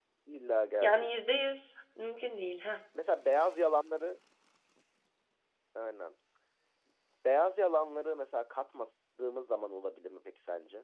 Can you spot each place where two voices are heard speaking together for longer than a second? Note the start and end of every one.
none

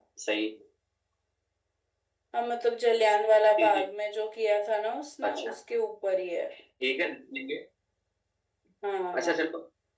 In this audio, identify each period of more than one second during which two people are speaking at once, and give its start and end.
none

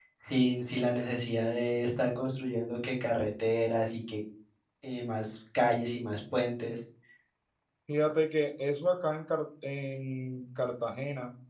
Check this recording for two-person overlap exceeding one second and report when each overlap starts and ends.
none

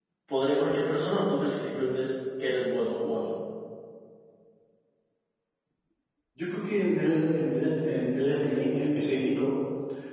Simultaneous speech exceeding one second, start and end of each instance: none

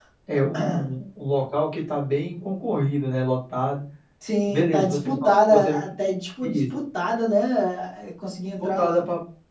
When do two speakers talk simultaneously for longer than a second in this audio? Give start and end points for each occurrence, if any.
4.5-5.8

